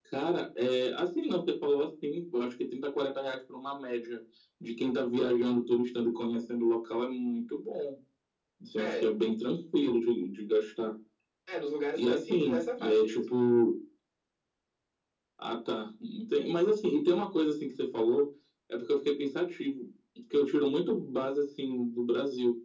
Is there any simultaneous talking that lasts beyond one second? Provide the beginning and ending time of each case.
11.9-13.2

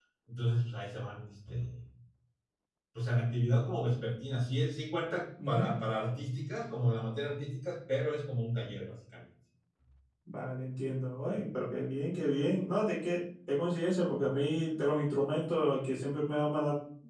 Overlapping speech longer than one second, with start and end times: none

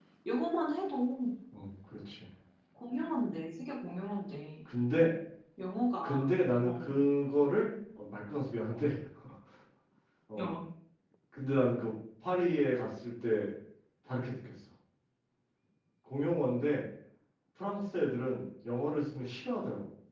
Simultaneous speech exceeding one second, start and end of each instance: none

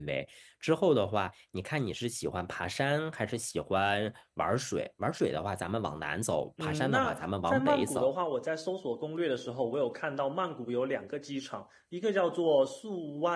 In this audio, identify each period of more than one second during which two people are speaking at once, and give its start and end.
6.6-8.1

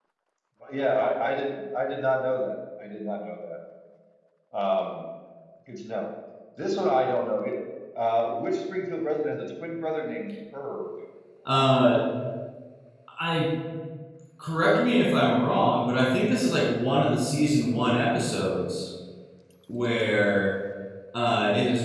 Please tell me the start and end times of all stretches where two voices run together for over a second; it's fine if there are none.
none

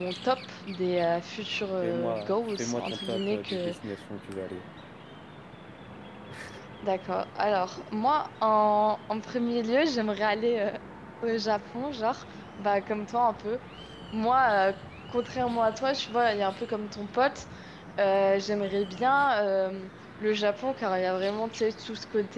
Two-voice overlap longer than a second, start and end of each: 1.8-3.7

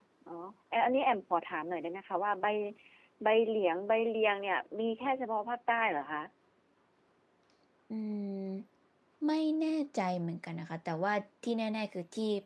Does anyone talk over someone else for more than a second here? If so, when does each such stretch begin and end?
none

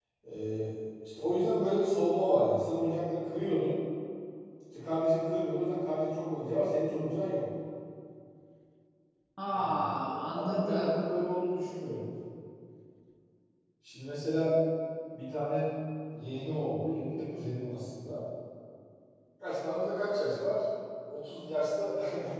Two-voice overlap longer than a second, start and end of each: 9.5-11.0

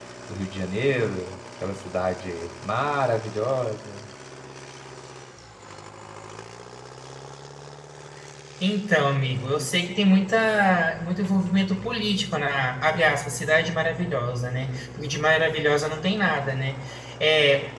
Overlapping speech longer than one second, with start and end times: none

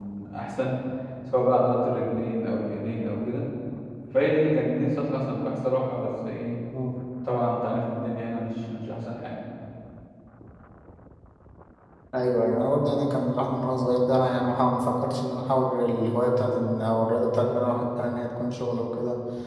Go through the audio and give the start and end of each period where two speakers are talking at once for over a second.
none

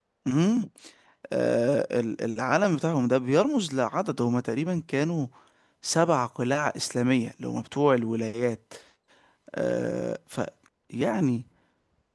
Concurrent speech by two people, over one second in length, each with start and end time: none

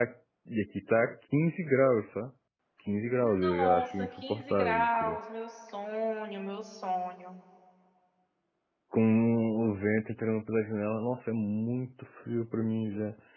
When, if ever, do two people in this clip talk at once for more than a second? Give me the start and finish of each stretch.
3.4-5.2

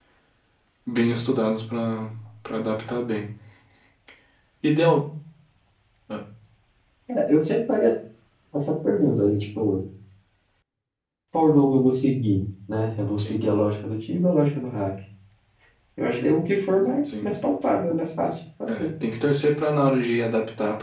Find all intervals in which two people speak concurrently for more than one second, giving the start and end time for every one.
none

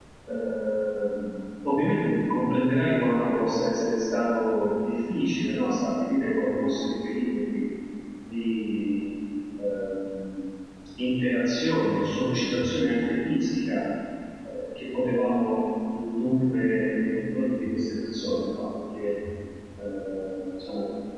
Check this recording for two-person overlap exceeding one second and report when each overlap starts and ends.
none

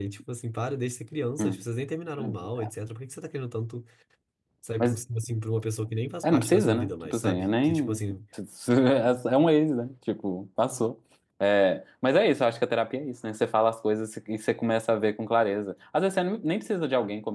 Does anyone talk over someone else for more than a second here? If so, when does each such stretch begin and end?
6.2-8.0

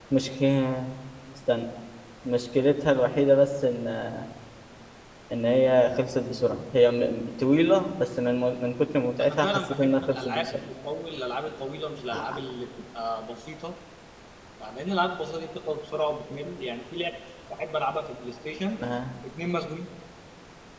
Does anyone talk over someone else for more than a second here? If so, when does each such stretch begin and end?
9.2-10.4

